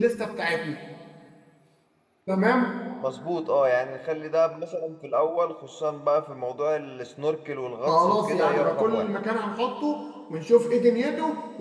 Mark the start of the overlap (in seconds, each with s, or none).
7.8 s